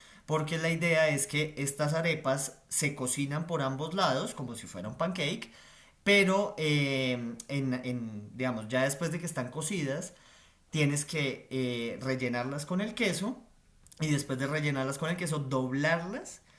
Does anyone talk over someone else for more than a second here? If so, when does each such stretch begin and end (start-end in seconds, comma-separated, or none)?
none